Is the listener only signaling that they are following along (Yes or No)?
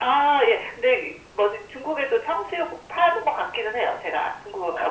No